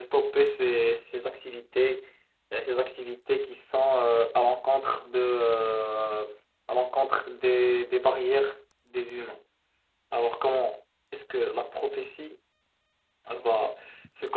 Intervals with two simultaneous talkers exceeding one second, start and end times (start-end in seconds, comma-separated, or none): none